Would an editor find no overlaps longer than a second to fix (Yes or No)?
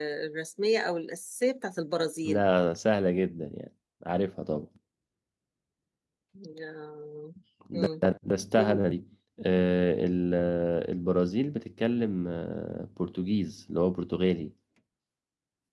Yes